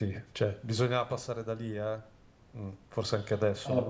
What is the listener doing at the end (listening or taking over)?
taking over